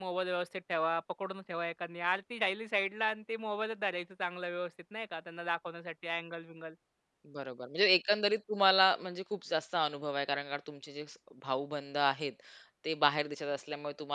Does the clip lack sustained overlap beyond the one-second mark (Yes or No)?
Yes